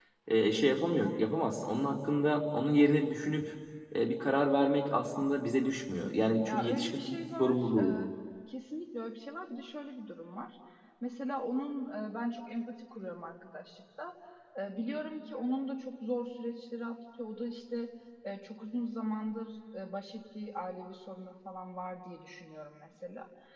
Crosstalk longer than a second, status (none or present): present